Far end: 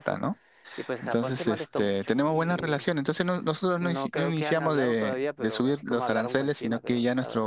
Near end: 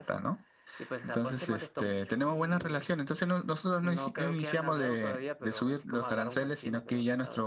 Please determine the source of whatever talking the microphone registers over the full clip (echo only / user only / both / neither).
echo only